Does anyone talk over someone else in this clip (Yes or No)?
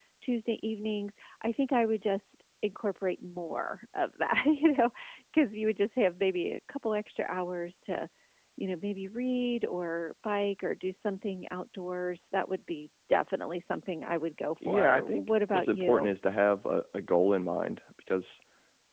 Yes